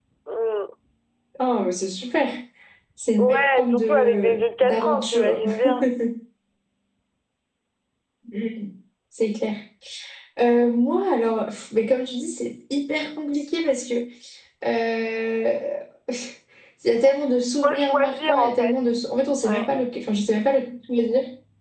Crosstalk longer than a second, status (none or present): present